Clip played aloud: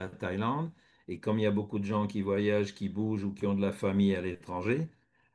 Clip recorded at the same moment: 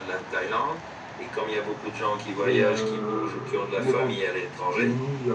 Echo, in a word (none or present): present